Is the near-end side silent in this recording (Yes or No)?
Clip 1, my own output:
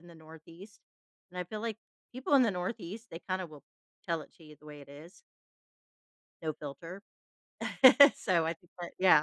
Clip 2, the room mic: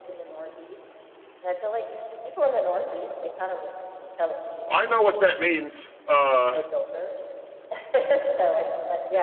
No